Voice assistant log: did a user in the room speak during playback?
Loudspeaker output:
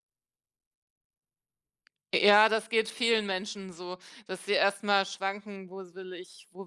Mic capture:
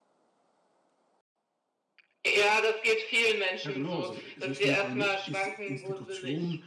Yes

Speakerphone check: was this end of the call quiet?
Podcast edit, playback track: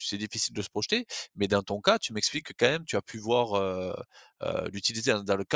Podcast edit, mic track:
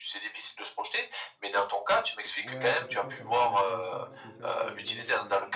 No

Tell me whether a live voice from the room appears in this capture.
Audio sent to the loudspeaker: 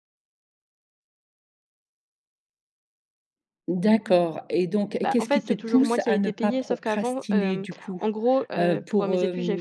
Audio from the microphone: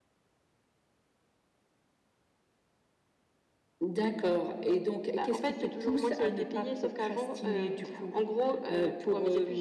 No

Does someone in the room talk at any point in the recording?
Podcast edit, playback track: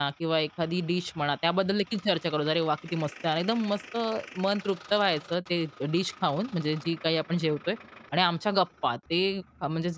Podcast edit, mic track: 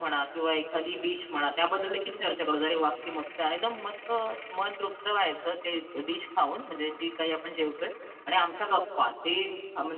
No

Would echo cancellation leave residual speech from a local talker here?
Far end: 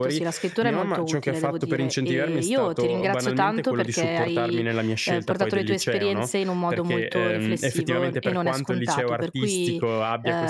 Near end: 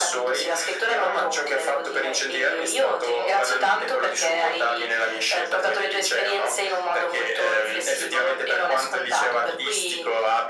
No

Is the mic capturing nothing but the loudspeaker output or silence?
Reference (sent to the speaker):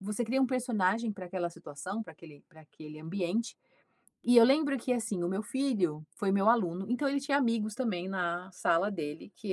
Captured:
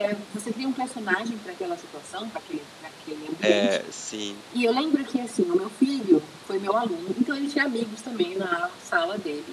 No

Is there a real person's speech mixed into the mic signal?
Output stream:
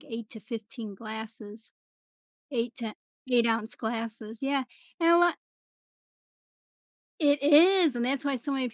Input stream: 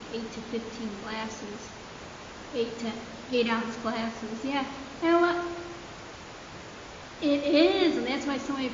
No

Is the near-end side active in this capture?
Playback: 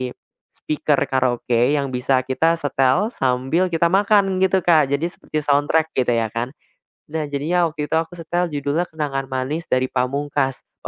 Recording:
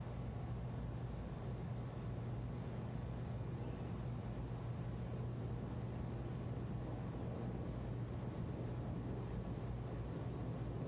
No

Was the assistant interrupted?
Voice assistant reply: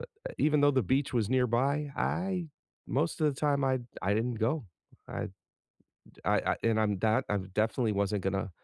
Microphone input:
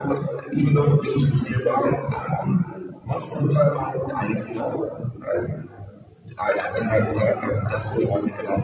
No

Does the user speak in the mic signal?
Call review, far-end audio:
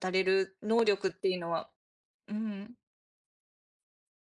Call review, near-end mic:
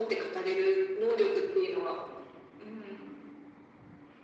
No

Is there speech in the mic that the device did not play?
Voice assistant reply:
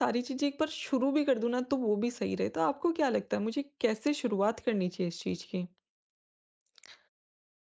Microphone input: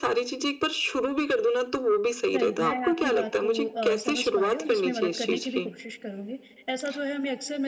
Yes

